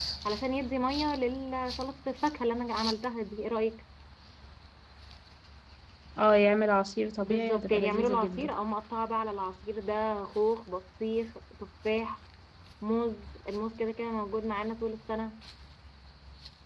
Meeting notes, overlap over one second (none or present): present